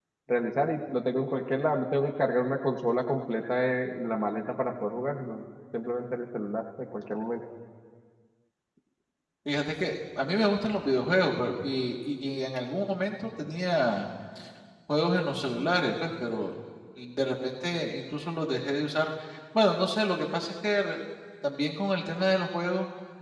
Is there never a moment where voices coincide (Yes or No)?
Yes